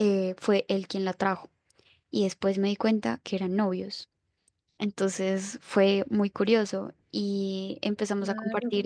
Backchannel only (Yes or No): Yes